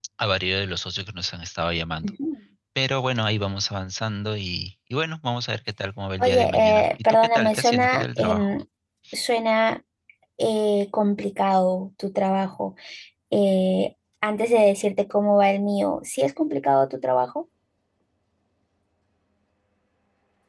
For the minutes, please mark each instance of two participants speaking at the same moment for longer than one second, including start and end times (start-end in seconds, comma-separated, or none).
6.2-8.6